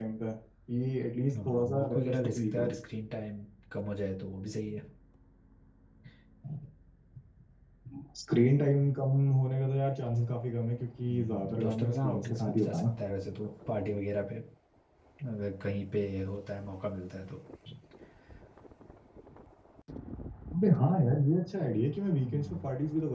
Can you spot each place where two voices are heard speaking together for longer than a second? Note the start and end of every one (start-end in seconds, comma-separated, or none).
1.4-2.7, 11.1-12.8